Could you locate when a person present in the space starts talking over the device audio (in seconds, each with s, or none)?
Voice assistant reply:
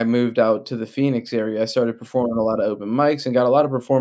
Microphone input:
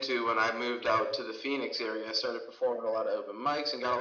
none